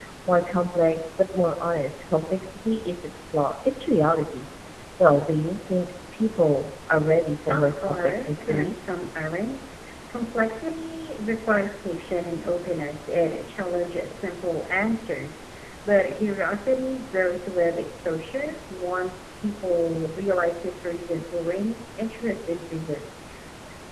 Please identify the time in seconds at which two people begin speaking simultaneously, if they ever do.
7 s

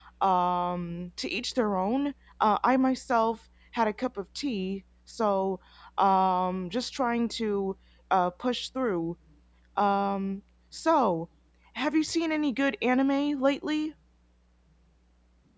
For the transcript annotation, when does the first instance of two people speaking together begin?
none

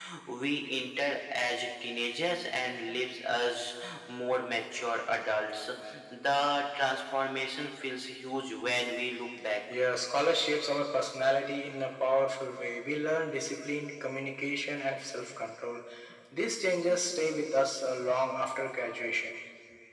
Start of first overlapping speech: none

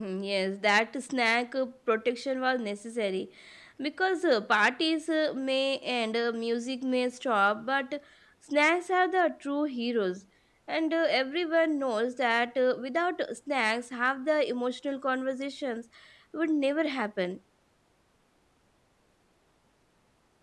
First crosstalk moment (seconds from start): none

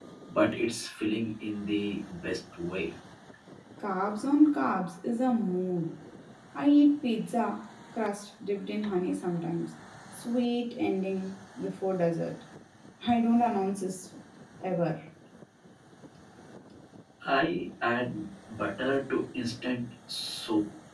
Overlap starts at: none

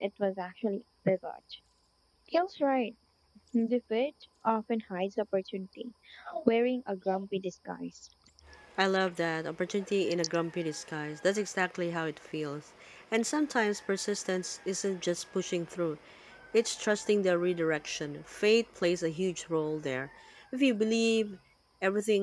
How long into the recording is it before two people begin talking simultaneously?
none

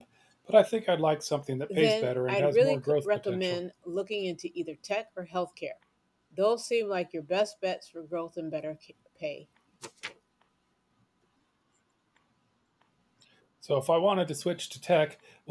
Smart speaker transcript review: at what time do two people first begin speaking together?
2 s

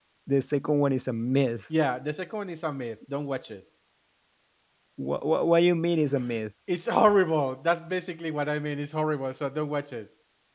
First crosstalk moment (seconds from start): none

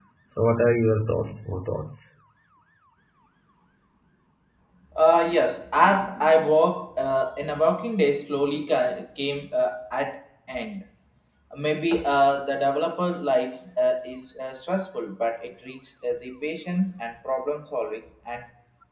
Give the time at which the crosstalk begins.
none

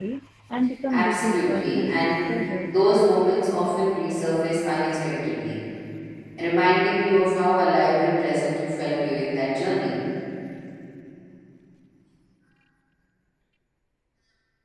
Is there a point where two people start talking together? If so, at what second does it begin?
1 s

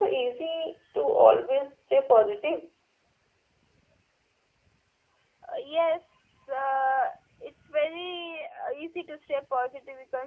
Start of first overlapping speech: none

